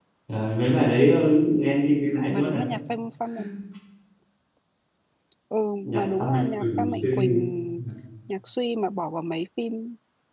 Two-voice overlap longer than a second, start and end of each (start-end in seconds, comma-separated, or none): 5.9-7.3